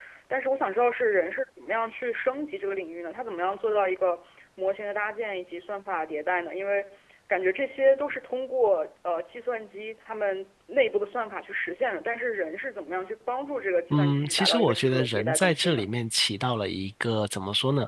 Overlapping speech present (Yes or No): Yes